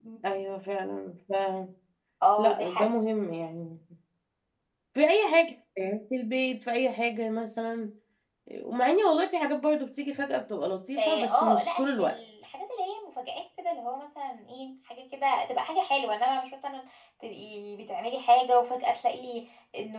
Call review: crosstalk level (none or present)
present